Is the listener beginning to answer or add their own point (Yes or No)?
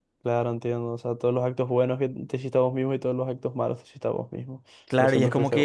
Yes